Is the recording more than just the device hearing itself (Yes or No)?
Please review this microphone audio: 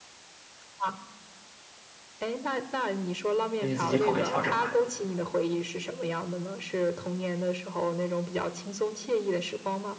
Yes